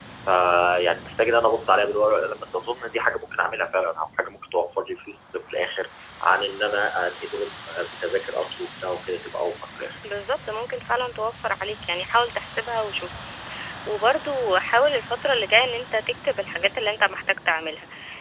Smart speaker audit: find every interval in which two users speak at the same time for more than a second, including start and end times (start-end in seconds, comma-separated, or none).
none